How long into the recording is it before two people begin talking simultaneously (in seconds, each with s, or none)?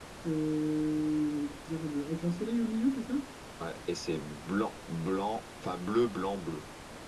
none